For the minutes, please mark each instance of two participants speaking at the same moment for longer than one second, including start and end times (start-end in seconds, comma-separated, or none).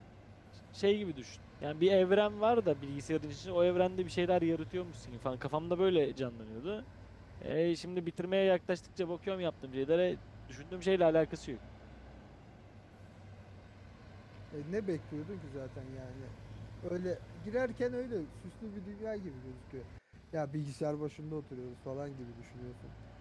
none